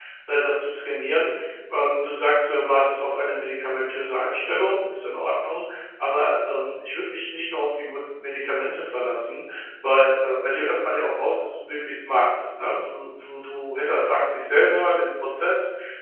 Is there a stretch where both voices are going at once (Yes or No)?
No